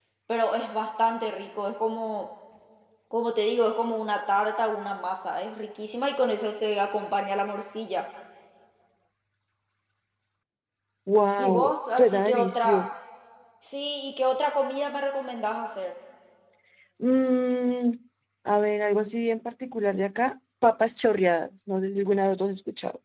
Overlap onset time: 11.4 s

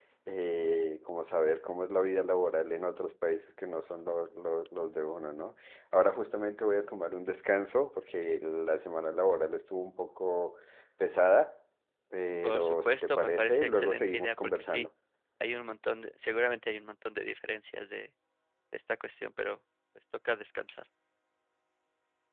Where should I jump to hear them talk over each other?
12.4 s

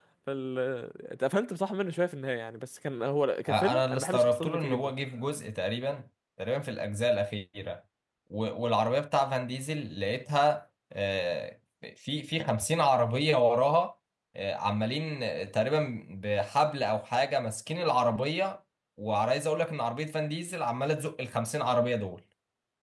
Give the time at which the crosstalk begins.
3.5 s

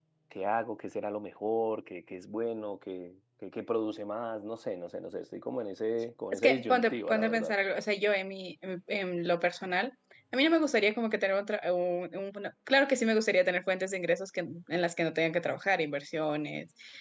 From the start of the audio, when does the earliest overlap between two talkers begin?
6.3 s

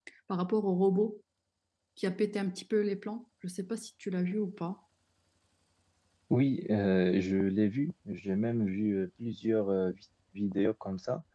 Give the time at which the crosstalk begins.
none

